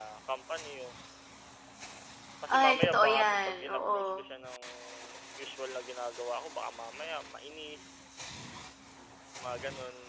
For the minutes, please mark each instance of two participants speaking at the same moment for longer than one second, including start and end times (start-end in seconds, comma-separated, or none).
2.6-4.2